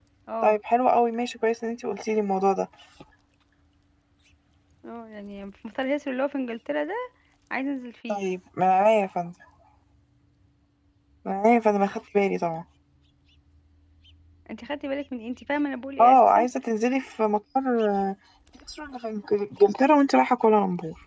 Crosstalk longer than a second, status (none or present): none